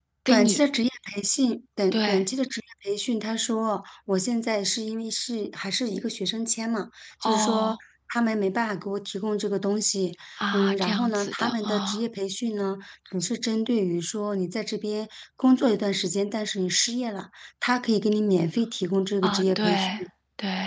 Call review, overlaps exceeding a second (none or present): present